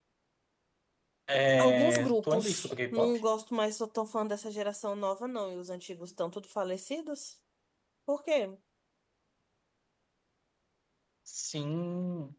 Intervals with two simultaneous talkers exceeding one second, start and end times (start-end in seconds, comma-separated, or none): 1.6-3.2